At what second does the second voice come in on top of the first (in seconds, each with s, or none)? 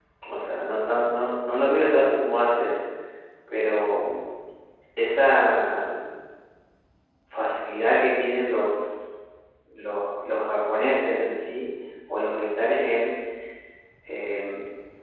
none